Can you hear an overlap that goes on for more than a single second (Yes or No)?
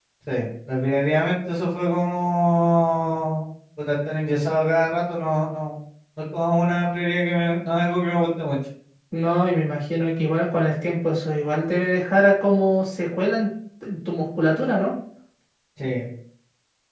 No